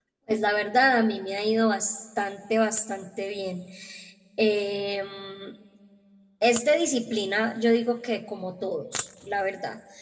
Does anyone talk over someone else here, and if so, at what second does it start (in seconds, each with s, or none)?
none